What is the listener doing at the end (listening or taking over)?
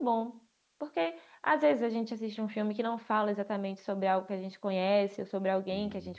listening